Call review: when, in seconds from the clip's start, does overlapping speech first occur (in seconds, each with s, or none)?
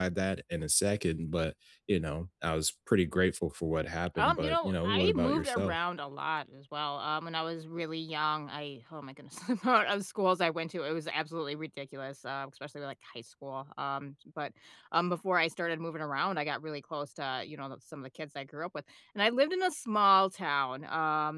4.2 s